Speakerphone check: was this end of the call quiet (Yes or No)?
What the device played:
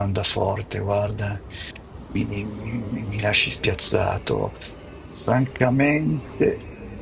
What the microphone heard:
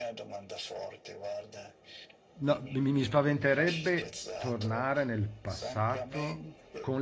No